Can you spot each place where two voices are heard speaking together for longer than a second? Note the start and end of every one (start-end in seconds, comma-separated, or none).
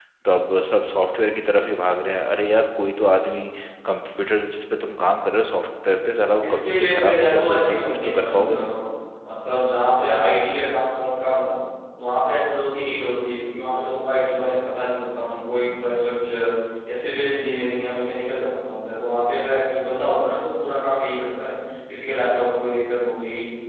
6.4-8.7